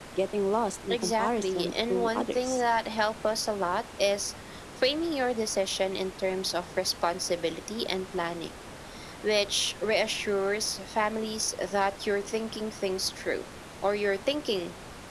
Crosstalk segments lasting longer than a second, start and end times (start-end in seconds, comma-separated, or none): 0.9-2.6